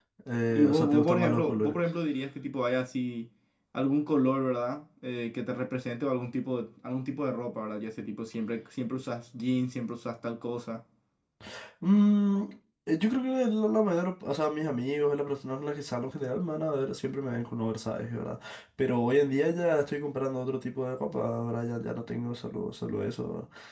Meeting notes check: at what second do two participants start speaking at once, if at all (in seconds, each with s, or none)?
0.5 s